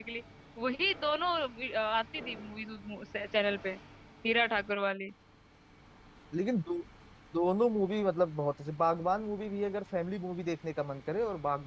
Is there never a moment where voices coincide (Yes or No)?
Yes